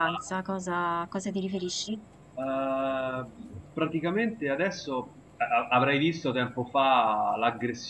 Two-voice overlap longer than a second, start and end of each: none

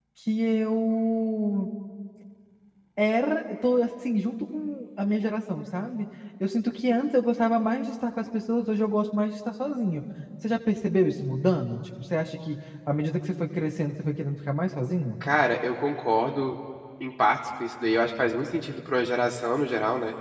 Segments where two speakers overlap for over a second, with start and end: none

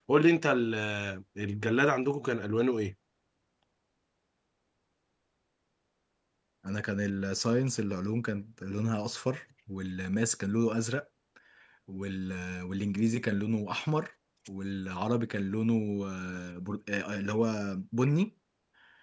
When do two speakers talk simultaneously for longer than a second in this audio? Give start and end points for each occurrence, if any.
none

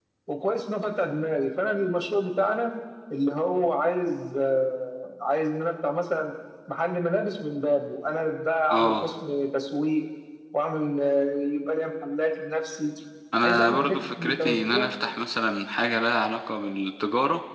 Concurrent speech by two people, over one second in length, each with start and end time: 13.4-14.9

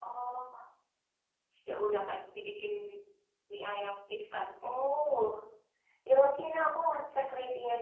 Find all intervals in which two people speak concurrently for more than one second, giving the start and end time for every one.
none

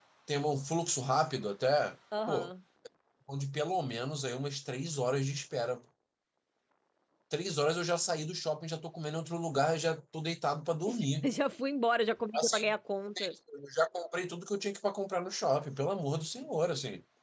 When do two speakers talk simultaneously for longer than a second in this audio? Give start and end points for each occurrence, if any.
none

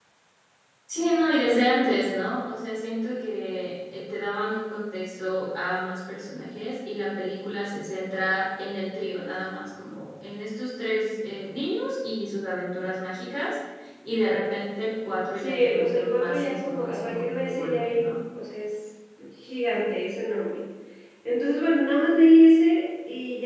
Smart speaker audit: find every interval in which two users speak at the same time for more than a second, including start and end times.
15.3-18.1

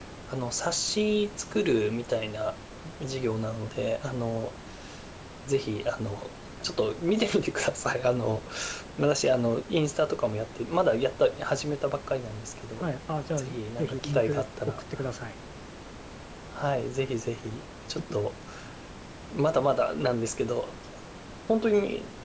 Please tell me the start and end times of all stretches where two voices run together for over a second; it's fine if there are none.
13.4-15.0

